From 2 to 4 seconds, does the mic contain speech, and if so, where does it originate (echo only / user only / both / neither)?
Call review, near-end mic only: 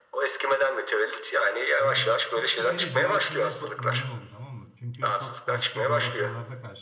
both